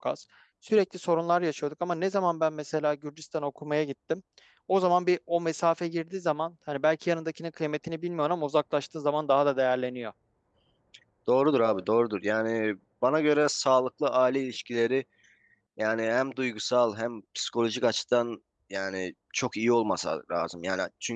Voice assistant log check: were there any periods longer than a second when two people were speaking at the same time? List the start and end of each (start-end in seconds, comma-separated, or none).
none